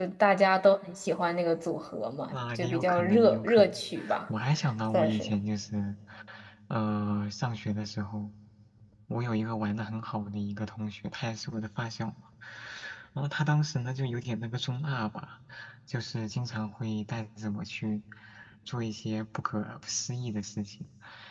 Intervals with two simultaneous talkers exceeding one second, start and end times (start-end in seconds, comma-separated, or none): 2.3-3.8